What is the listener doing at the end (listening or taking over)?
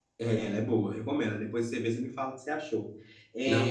listening